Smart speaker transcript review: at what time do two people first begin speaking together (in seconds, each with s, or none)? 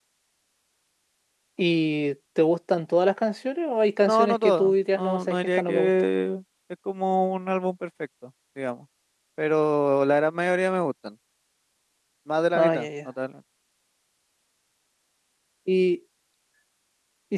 4.0 s